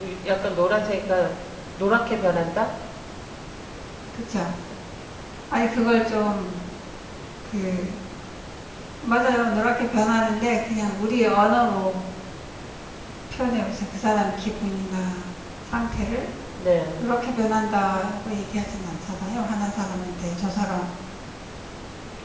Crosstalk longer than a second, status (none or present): none